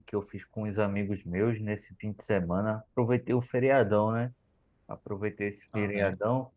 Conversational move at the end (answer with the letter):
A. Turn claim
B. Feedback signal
B